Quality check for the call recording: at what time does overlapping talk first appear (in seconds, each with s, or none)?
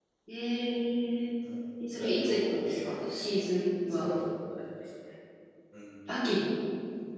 1.9 s